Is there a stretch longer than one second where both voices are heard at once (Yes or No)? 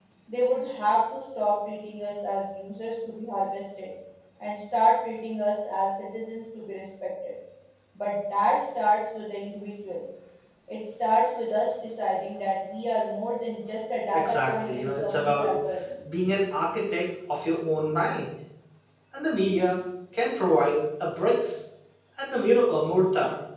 Yes